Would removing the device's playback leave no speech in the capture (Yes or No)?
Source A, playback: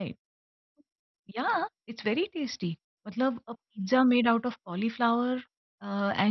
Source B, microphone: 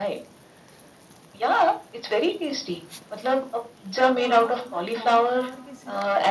No